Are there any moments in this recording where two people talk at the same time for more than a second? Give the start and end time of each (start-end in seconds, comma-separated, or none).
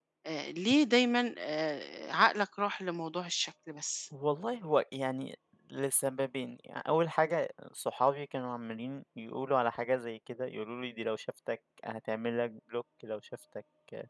none